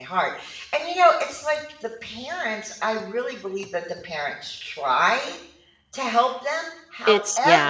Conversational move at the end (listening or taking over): listening